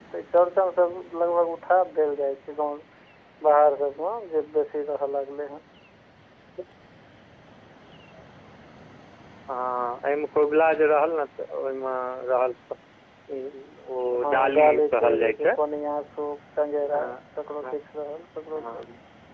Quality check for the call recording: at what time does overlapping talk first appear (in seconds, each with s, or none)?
14.2 s